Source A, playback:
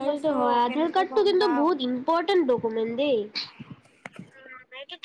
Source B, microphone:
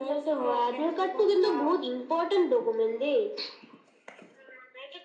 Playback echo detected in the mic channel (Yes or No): Yes